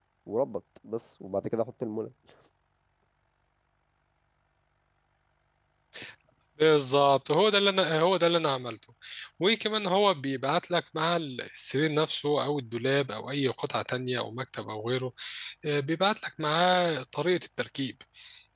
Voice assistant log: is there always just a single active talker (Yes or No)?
Yes